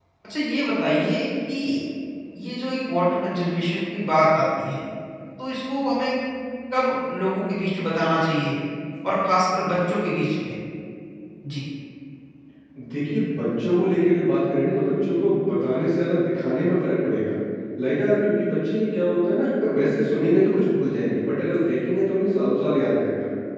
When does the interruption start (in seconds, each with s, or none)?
none